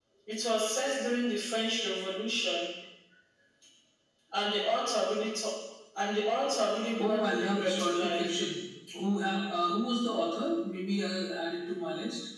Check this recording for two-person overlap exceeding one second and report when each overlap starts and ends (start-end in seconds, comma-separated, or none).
7.0-8.3